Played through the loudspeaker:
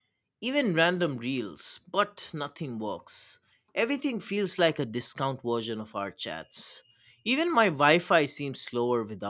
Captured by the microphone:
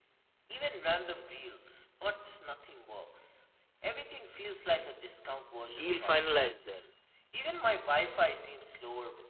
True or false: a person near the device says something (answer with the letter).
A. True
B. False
A